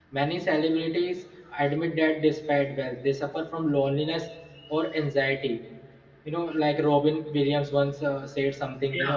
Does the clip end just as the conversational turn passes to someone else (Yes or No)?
No